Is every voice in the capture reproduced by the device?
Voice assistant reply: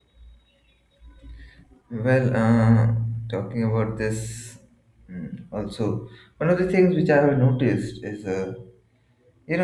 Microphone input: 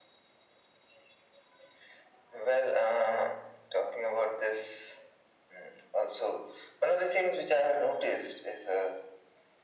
Yes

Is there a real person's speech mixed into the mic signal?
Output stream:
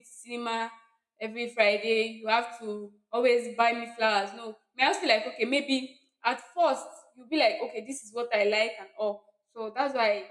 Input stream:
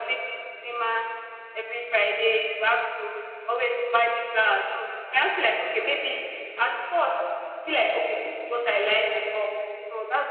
No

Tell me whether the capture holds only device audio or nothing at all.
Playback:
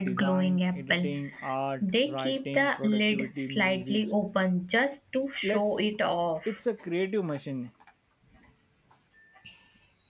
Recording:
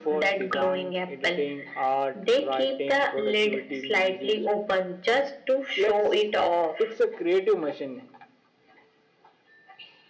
Yes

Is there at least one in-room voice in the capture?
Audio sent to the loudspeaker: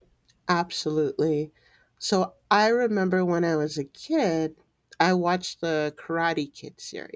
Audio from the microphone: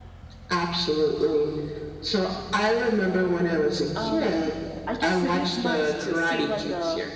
Yes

